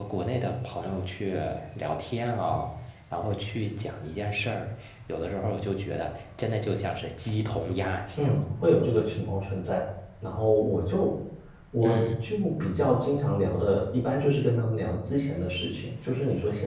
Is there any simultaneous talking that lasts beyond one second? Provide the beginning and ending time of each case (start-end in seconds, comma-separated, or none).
none